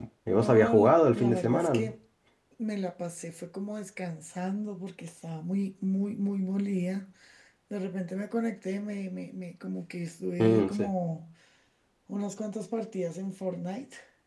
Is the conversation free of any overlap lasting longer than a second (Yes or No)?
No